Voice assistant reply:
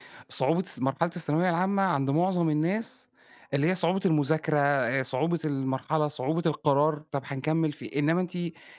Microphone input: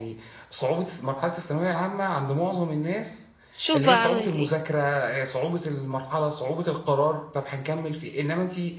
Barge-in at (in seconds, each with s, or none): 3.5 s